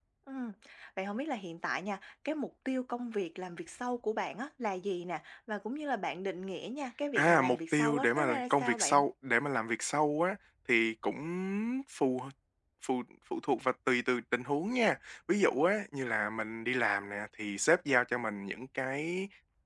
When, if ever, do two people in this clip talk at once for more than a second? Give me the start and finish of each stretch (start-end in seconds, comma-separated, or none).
7.2-9.0